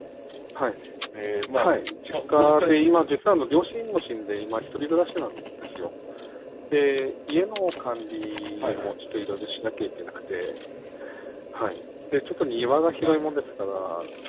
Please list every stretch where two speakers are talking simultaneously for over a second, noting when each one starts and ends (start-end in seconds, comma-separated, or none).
2.1-3.4